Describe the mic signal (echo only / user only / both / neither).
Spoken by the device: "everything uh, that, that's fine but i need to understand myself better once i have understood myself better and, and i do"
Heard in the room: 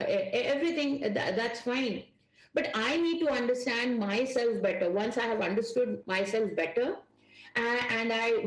echo only